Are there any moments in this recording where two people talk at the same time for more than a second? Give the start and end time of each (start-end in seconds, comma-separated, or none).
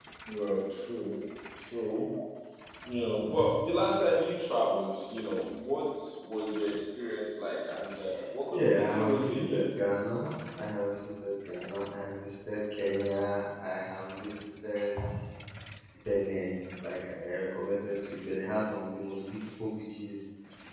8.5-9.7